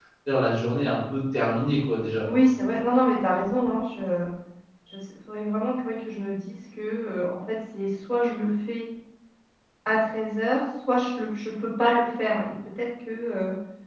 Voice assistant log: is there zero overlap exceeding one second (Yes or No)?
Yes